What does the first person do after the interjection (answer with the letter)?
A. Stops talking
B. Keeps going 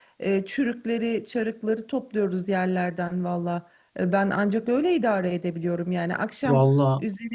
B